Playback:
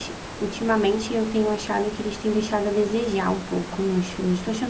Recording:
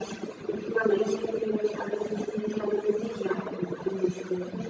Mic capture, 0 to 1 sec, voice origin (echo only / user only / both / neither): echo only